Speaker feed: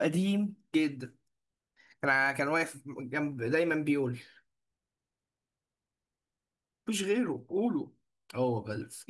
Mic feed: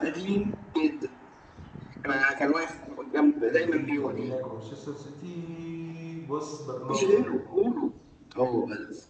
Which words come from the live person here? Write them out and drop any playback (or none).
بنفيكا موناكو مانشستر سيتي بص برناردو سيلفا